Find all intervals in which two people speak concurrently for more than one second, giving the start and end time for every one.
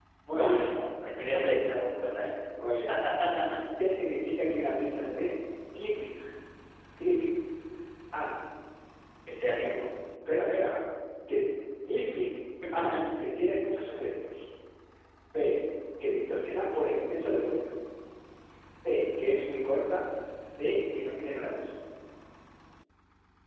none

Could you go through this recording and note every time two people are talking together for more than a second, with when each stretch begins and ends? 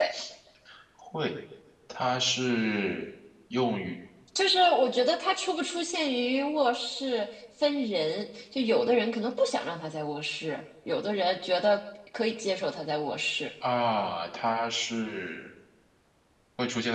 none

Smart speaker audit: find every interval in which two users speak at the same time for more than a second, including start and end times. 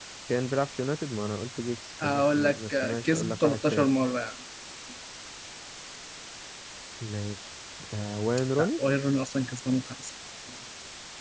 2.0-3.9

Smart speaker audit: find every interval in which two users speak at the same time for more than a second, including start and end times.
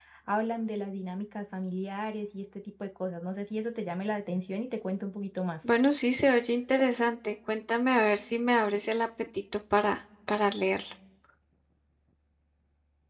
none

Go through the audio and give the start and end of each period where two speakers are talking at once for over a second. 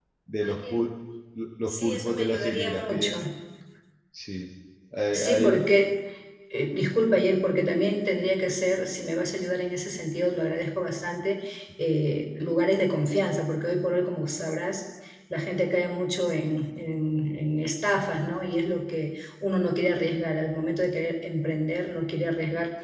1.7-3.1

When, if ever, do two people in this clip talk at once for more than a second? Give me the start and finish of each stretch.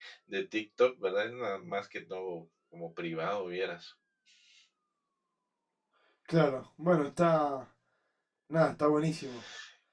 none

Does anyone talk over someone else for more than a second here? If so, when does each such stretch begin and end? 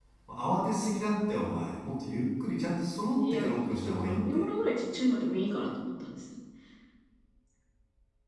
3.2-4.4

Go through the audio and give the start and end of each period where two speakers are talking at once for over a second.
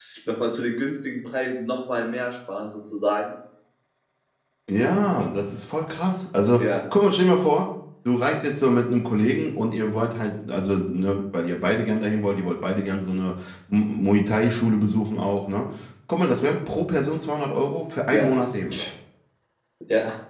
none

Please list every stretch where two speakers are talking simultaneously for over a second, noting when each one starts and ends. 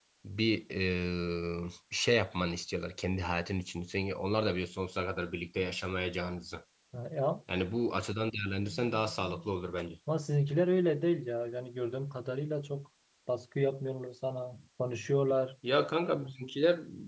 none

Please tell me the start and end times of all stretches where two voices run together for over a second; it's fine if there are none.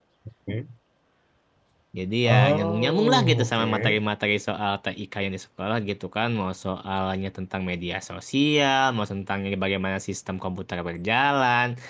2.2-4.0

